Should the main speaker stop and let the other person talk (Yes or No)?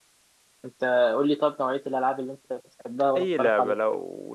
Yes